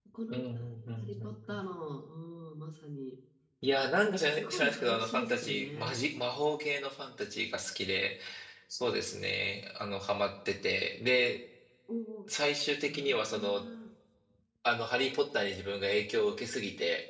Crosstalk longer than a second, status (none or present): present